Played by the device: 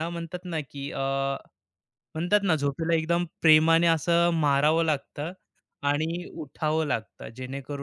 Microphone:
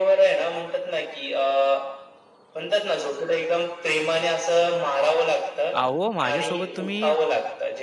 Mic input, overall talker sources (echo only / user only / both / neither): both